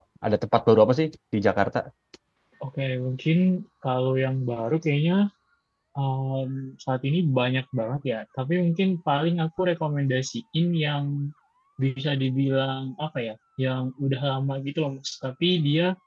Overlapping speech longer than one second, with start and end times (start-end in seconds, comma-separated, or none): none